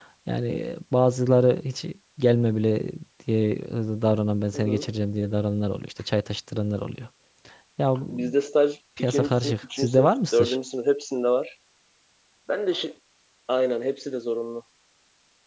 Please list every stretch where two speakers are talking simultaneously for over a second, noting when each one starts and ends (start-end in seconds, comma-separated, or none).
9.0-10.6